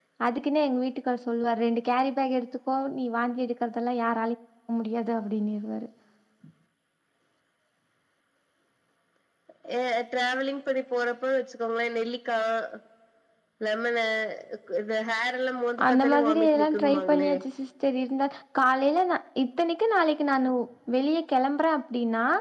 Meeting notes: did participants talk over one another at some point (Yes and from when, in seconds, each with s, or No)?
Yes, from 15.8 s